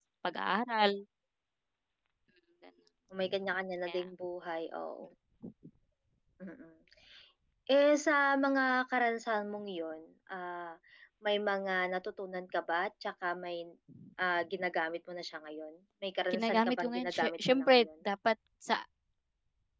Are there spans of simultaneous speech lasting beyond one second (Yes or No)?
Yes